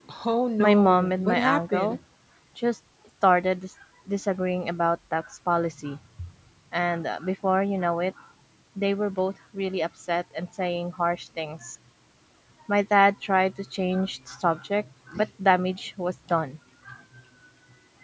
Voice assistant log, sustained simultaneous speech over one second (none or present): present